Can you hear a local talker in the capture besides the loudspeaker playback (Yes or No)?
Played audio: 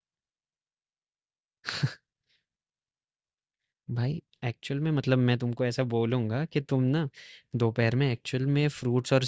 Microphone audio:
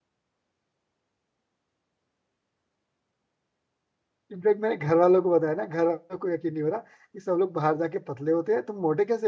Yes